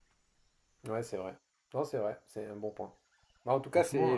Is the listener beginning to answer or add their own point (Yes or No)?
No